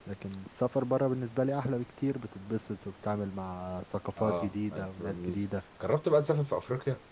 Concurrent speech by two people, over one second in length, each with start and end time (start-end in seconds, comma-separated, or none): 4.2-5.4